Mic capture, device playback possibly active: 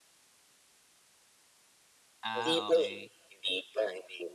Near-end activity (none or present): present